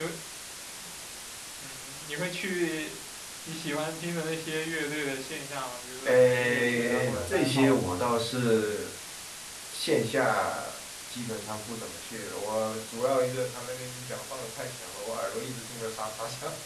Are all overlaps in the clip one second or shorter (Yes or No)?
No